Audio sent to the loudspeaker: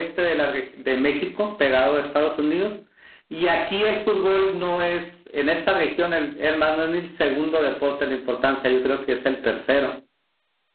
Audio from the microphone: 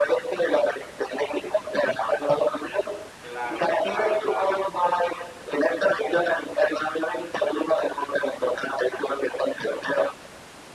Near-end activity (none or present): present